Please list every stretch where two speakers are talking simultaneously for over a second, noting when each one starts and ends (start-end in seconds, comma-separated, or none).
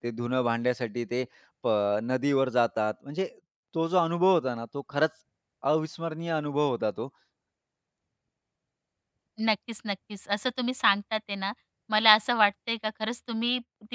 none